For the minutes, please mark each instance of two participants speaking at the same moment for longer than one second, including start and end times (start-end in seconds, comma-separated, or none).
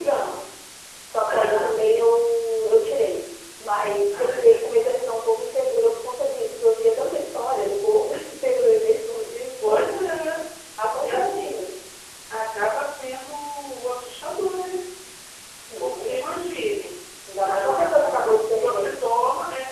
17.4-18.9